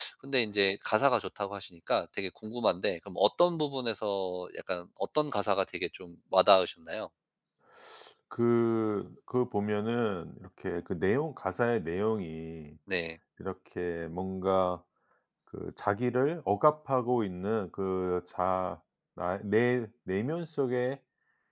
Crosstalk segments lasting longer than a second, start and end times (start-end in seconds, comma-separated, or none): none